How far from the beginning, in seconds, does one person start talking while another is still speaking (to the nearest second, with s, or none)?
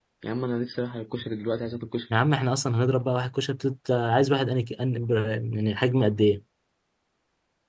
none